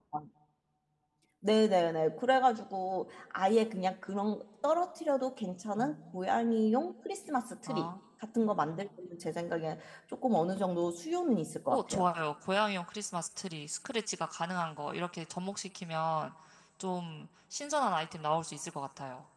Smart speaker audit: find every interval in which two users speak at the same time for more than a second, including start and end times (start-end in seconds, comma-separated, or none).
none